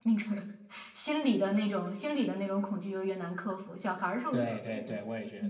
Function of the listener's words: taking over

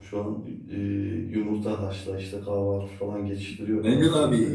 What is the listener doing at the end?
taking over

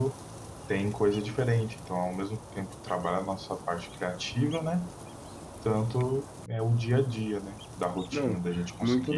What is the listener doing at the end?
taking over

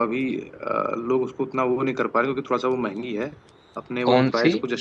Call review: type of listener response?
listening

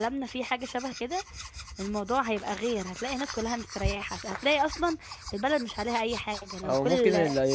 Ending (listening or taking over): taking over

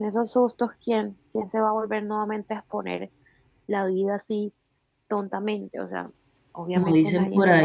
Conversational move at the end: taking over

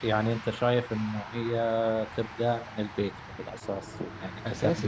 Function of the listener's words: taking over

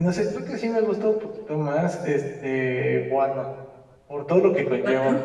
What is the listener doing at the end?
listening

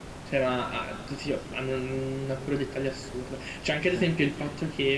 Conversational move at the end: listening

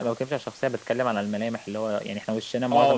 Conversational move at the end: taking over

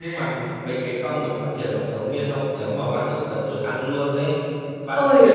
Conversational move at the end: taking over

